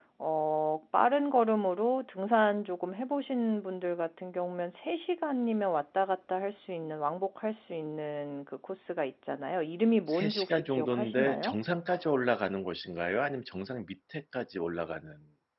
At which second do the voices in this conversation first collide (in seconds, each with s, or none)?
10.1 s